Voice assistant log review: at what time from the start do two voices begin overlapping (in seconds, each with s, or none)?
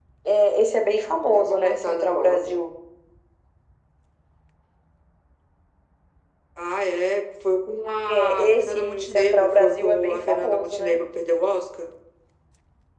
1.3 s